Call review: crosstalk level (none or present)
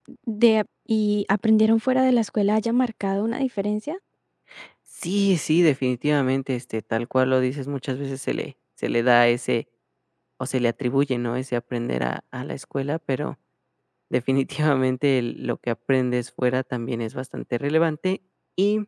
none